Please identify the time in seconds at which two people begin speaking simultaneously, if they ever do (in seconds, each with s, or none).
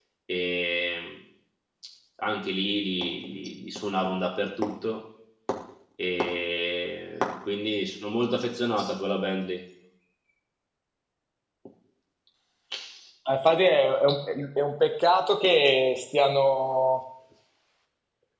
none